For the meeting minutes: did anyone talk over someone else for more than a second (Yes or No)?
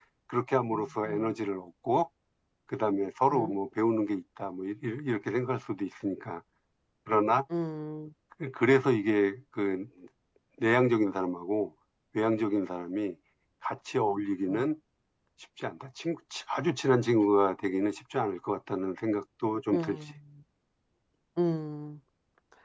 No